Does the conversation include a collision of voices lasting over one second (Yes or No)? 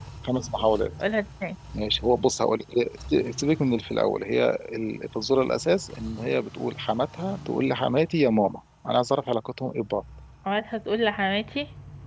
No